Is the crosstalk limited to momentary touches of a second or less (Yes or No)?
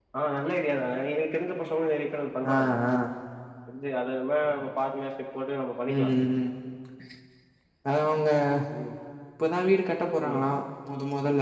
Yes